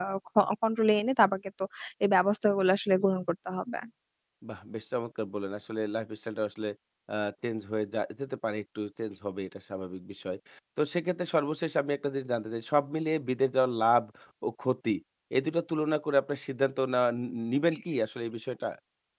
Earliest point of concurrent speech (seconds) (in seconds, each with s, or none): none